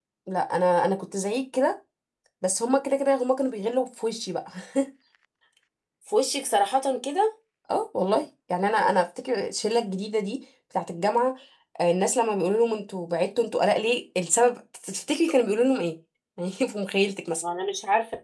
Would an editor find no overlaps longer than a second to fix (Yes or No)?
Yes